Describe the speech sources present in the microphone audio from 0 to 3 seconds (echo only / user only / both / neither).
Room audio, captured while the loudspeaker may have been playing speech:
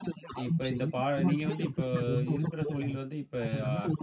both